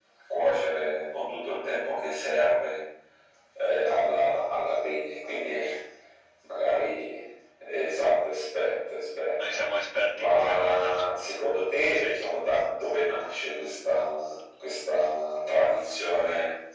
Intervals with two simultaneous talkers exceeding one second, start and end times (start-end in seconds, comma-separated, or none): 10.2-11.4